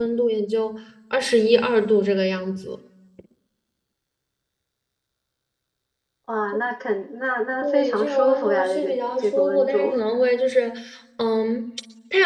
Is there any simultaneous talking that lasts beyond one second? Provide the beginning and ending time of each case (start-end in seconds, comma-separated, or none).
7.6-10.0